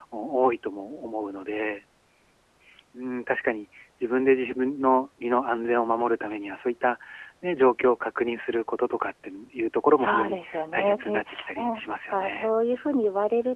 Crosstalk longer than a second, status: present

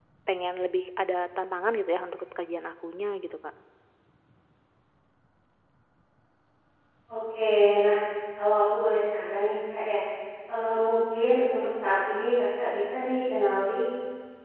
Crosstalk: none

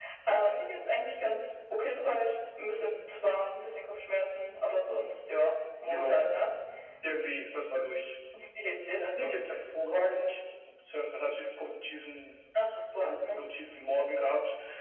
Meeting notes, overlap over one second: none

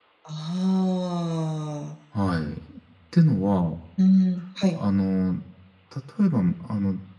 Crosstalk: none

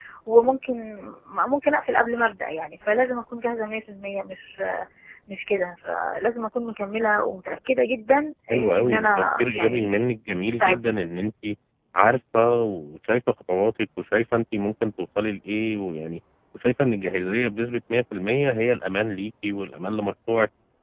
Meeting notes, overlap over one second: present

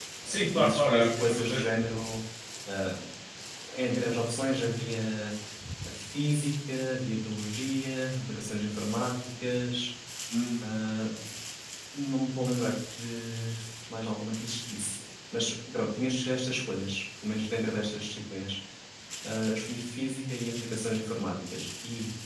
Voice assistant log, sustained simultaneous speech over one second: present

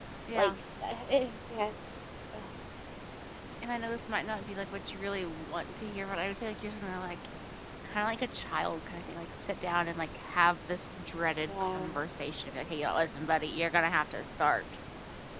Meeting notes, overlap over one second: none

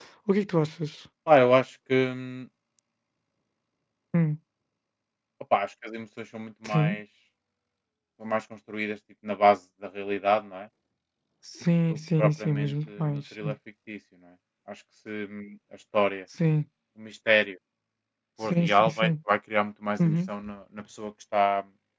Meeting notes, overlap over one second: present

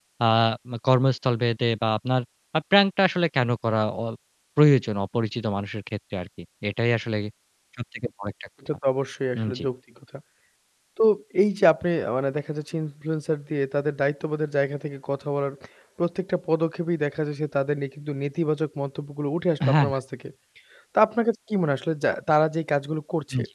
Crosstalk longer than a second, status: none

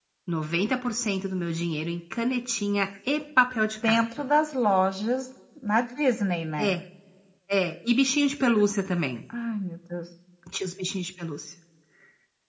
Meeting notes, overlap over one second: none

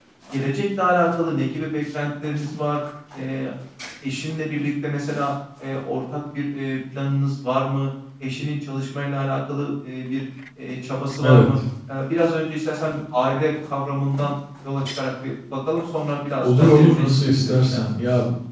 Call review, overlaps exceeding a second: present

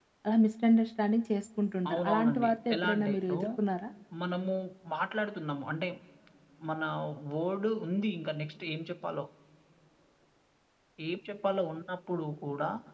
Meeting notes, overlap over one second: present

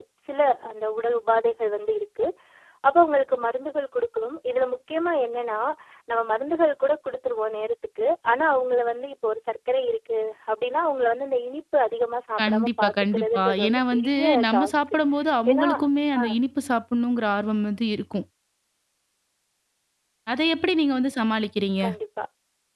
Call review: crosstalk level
present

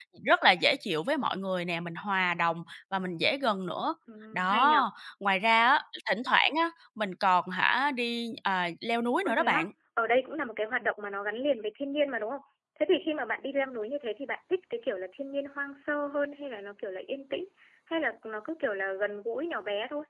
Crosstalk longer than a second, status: none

